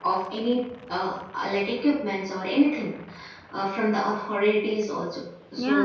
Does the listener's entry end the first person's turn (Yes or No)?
Yes